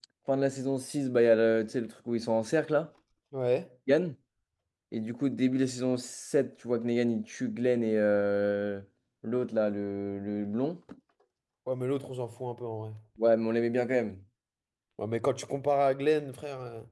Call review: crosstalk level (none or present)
none